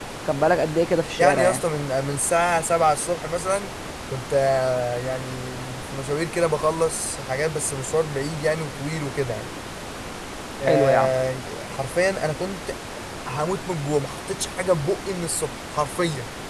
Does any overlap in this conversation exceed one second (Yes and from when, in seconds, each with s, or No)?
No